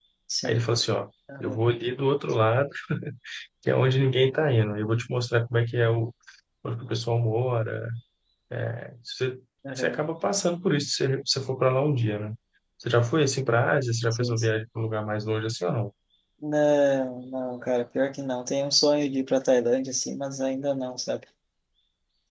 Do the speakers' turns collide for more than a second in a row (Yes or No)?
No